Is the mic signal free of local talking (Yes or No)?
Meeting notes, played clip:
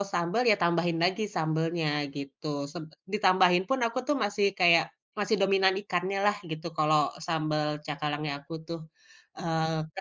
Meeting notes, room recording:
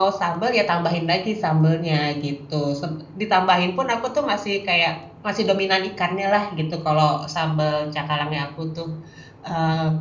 Yes